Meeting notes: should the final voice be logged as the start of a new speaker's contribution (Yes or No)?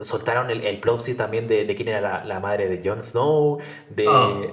No